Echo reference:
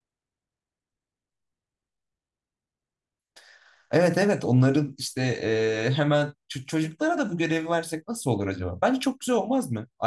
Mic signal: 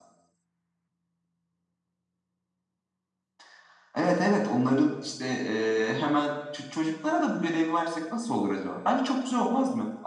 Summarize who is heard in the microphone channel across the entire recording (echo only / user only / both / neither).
echo only